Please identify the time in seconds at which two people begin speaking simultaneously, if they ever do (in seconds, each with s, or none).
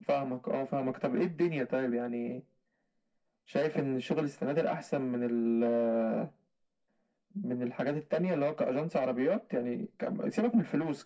none